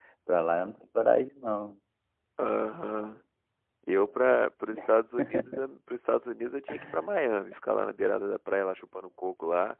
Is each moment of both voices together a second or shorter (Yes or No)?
Yes